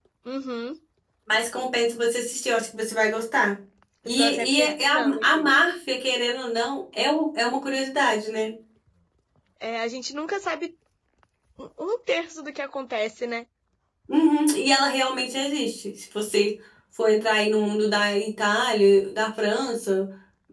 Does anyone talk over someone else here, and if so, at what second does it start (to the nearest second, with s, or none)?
4 s